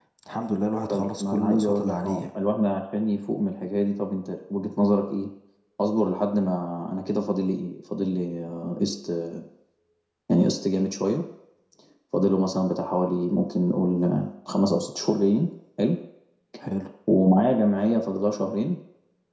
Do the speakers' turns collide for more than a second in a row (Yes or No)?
Yes